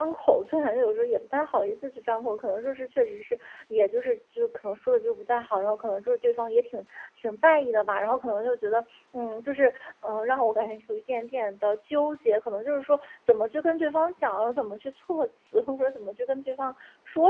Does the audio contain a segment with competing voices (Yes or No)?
No